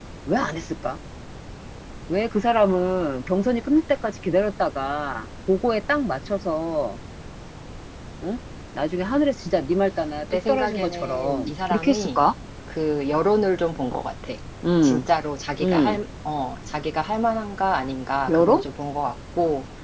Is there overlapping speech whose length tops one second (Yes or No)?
Yes